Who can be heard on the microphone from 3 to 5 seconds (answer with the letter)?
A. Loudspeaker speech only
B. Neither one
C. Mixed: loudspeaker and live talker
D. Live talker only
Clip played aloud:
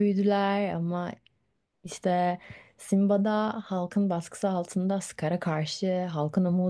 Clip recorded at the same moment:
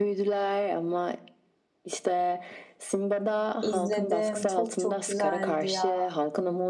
C